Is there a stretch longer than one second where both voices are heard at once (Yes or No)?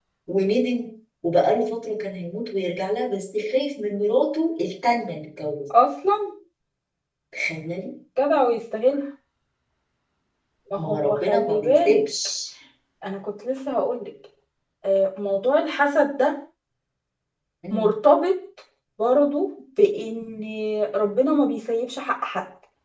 Yes